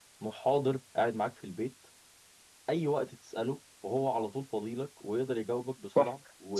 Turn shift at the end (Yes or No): Yes